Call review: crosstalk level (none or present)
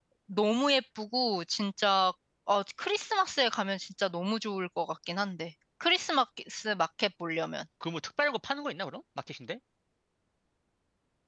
none